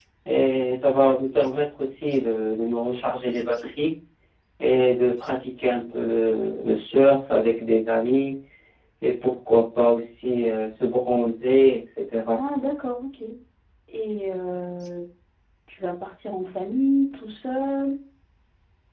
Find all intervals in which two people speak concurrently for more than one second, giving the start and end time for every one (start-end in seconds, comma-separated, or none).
none